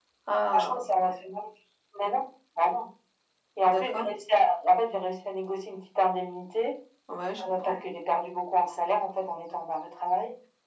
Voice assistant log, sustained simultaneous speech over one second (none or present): none